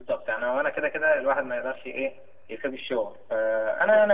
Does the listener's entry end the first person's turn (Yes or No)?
No